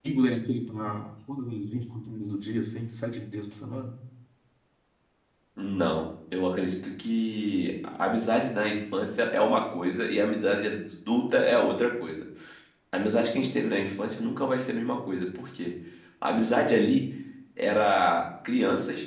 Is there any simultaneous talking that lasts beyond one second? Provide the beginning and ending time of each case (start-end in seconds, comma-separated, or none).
none